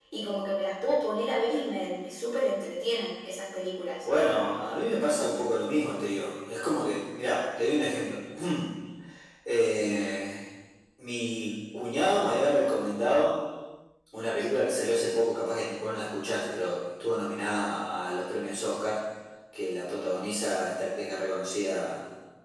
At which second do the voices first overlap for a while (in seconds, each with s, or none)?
none